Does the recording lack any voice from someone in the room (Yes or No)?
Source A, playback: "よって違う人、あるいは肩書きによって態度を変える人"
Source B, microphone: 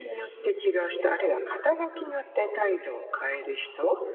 Yes